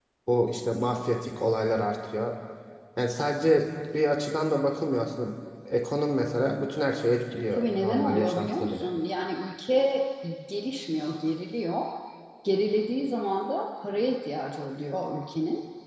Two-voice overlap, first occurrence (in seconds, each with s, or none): 7.5 s